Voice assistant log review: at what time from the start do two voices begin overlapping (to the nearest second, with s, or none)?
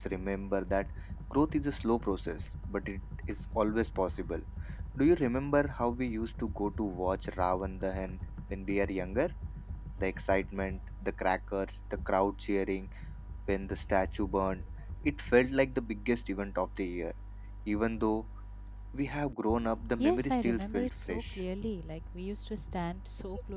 20 s